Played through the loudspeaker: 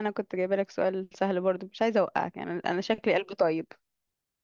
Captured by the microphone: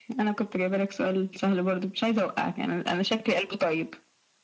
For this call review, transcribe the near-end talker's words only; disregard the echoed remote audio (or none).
none